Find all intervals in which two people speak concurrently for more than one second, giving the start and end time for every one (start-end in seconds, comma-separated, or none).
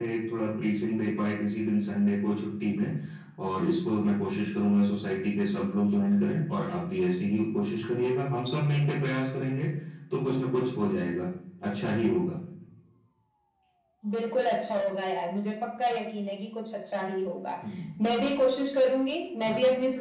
none